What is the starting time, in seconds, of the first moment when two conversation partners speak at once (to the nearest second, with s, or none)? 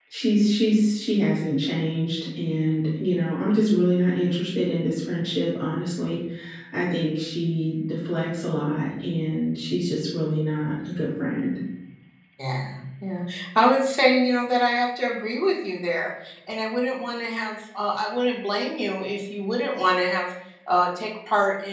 none